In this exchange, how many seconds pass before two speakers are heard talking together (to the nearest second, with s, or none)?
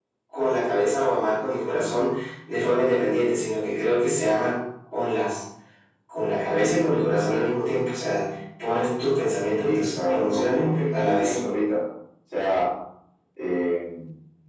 10 s